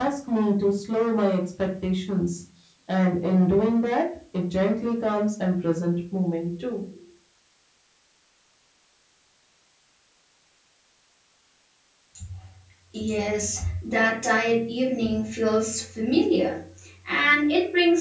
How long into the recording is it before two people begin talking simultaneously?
none

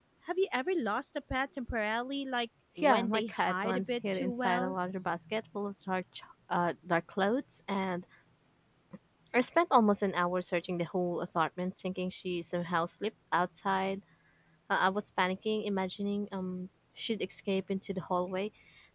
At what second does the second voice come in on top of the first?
2.8 s

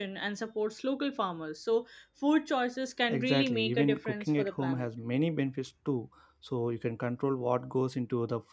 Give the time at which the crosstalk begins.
3.1 s

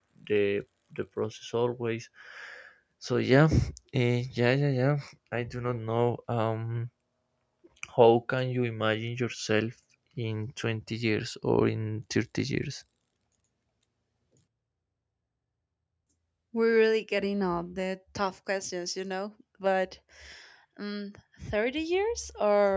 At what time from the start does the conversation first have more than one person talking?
none

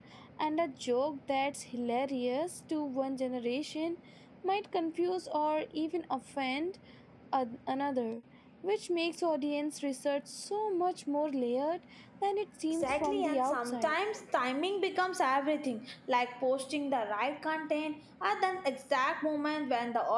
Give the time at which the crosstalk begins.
12.7 s

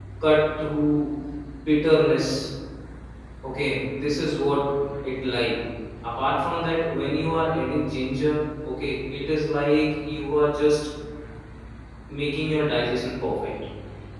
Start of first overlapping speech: none

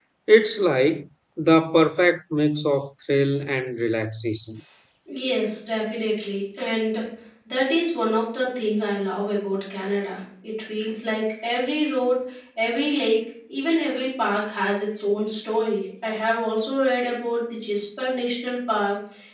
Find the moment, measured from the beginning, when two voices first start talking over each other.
none

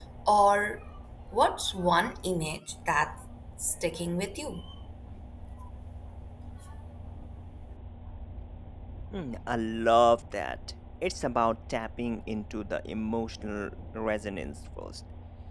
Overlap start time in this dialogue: none

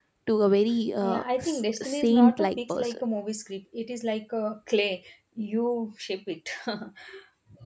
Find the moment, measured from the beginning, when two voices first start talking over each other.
1.0 s

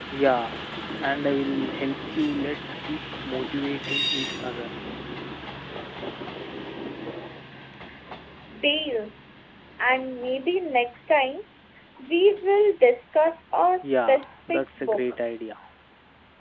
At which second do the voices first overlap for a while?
13.8 s

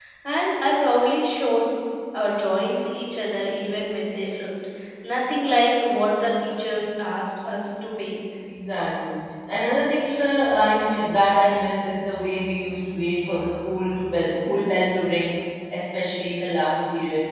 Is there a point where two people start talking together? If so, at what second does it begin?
none

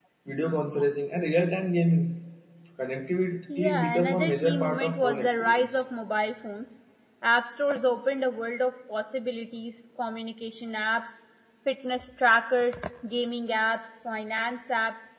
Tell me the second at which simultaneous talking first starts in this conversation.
3.6 s

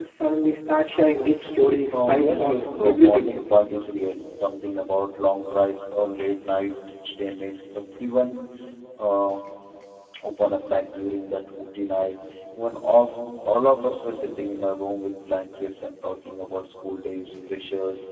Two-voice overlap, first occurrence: 1.9 s

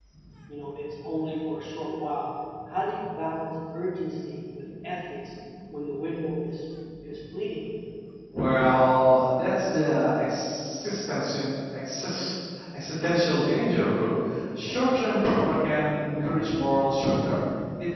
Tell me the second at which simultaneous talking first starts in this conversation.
none

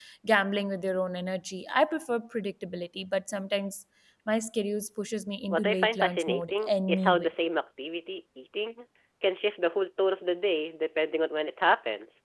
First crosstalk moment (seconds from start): 5.5 s

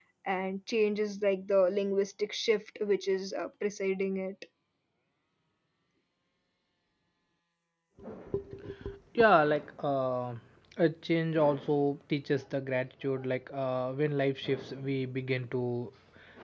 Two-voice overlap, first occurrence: none

